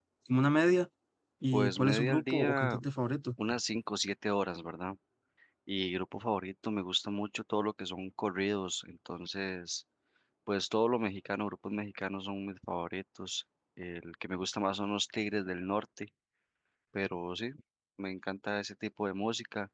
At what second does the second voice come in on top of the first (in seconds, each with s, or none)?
1.5 s